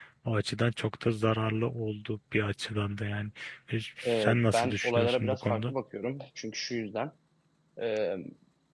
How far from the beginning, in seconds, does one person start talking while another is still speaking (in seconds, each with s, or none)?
4.2 s